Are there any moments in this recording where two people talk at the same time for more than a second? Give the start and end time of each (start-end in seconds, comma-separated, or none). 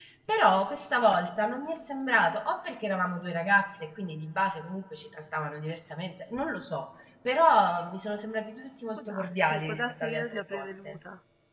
9.0-11.0